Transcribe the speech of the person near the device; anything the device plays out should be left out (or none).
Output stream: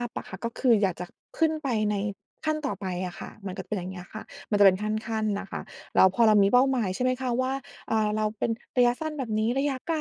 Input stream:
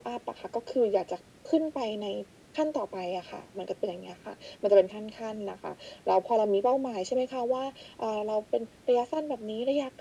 none